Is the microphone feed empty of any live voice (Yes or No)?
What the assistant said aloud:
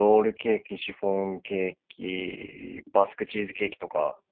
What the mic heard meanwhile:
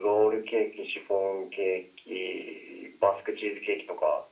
Yes